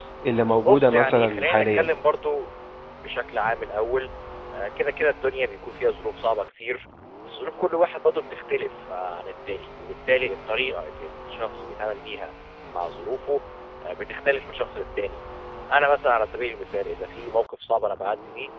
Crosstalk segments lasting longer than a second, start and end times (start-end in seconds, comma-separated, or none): 0.6-1.9